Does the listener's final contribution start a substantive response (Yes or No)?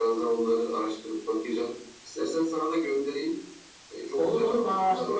Yes